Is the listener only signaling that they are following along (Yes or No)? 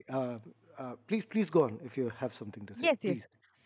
No